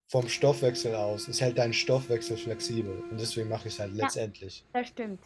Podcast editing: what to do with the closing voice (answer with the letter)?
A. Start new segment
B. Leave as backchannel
A